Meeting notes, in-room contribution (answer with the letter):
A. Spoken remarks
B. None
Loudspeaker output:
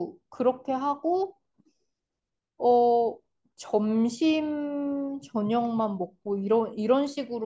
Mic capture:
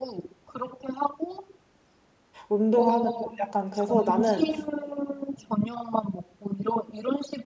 A